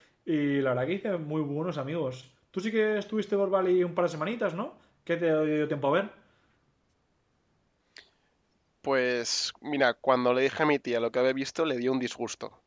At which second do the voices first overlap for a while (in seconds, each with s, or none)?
none